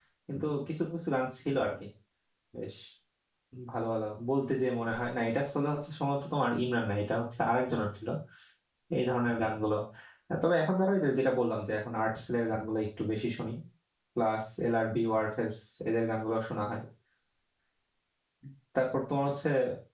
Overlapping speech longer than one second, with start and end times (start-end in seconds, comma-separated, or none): none